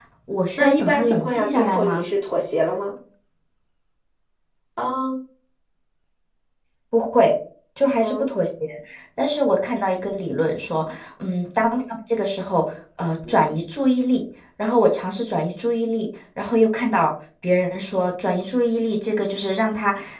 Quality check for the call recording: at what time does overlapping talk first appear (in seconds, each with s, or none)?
0.6 s